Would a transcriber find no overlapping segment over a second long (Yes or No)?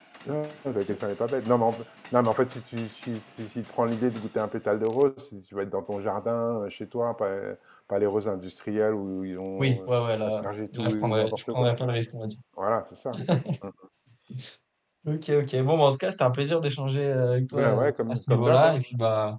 No